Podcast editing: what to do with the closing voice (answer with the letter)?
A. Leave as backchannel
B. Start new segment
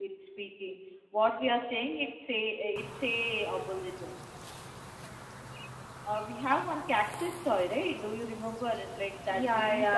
B